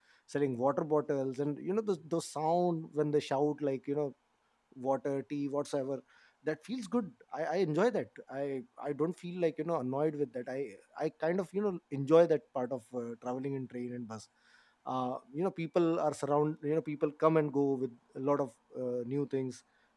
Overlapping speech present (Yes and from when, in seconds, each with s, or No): No